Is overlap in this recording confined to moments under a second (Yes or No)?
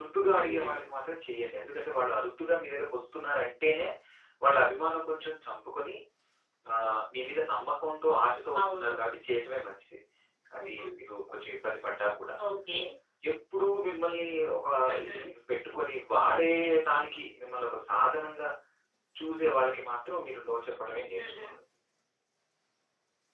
Yes